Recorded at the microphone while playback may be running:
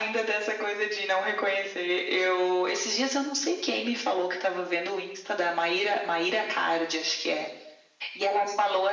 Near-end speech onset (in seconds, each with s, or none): none